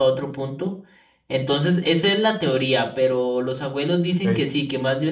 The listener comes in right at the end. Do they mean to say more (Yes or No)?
No